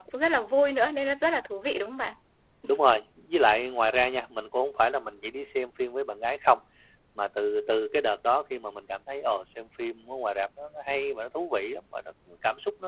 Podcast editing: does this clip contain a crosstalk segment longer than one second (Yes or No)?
No